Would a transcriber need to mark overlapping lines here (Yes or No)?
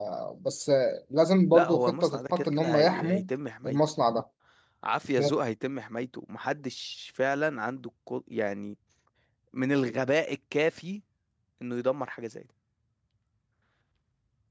Yes